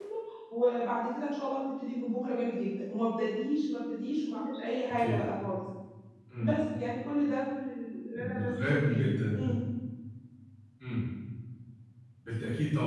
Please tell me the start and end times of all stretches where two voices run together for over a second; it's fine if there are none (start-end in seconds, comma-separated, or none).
8.2-9.6